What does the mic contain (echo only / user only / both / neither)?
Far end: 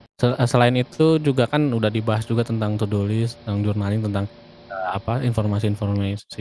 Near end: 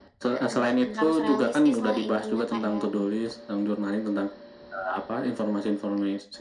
both